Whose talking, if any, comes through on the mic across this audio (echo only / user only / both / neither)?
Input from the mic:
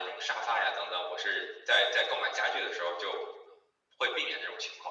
echo only